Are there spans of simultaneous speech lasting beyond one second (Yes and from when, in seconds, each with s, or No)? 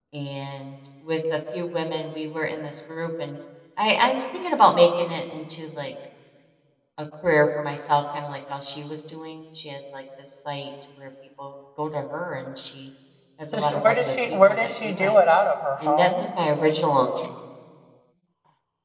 Yes, from 13.5 s